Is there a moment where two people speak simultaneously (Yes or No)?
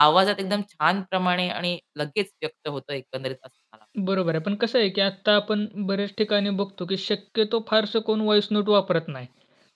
No